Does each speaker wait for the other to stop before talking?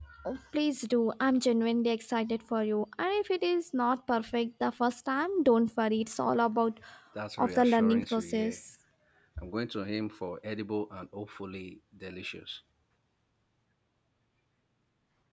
No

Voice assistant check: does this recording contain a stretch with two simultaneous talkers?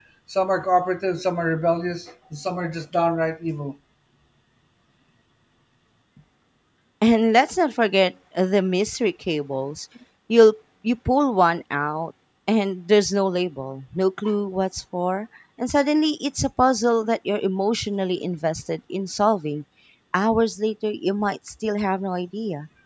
No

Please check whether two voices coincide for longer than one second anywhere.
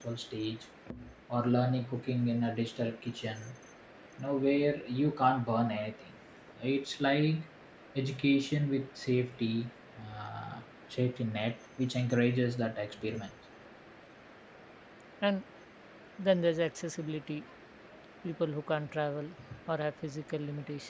No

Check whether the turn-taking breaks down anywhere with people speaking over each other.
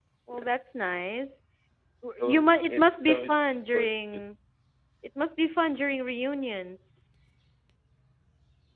Yes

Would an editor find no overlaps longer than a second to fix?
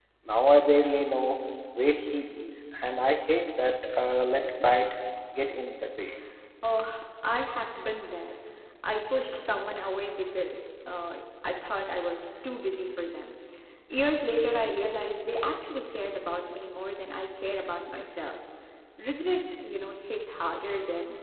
Yes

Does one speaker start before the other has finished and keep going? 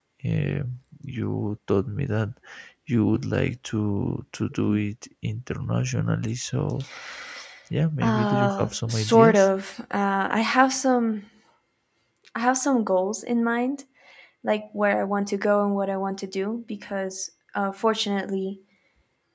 Yes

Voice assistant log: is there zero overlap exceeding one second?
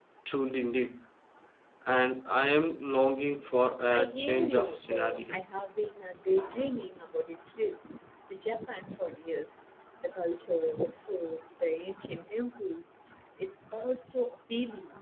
No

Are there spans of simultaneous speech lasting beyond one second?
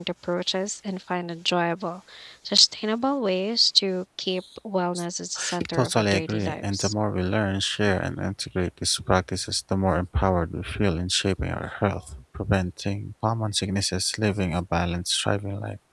Yes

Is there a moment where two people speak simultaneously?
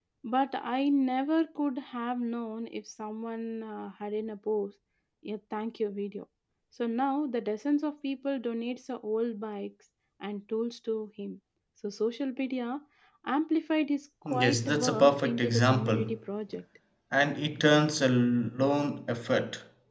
Yes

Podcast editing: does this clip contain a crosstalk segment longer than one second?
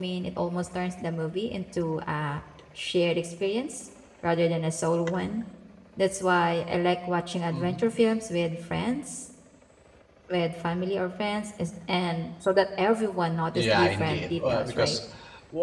Yes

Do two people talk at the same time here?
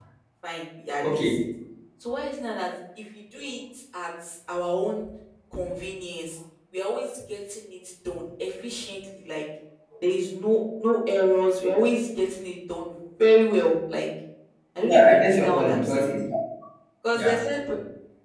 Yes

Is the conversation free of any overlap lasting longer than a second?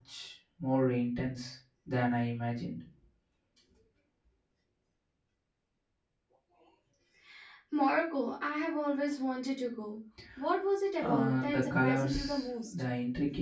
No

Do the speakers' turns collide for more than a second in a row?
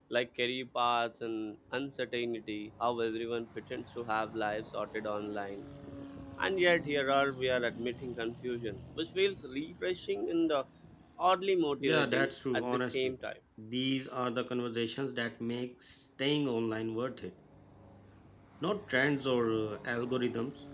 Yes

